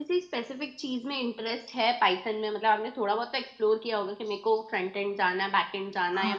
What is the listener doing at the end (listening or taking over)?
taking over